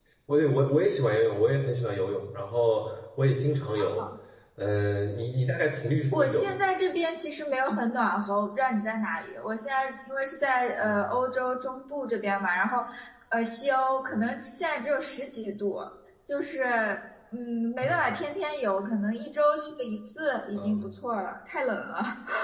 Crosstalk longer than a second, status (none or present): none